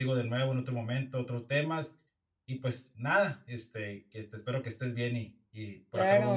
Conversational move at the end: taking over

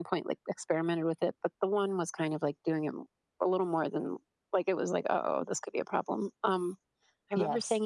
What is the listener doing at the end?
listening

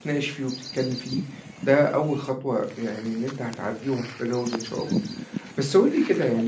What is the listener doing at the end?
listening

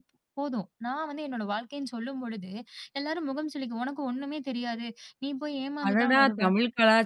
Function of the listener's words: taking over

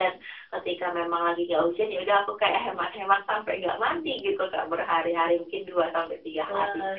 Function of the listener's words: taking over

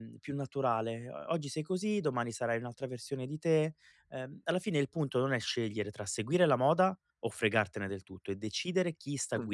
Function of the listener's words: listening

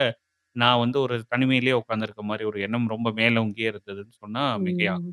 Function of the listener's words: taking over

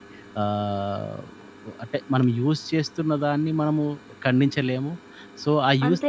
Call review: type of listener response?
listening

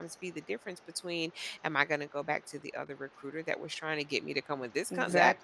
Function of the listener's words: listening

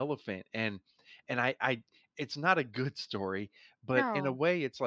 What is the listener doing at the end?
listening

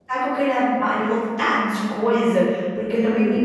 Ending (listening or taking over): listening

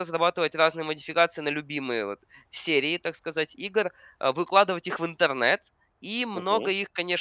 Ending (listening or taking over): listening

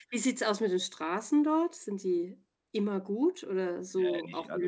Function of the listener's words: taking over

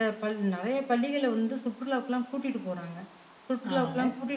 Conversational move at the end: listening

